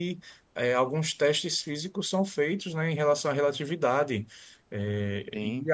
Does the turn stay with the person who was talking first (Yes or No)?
Yes